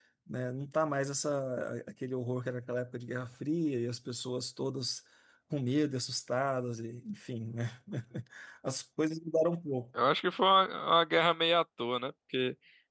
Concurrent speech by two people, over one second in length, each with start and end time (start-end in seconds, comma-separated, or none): none